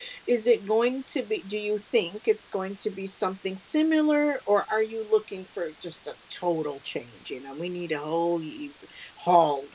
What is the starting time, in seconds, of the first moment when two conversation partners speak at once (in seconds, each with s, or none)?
none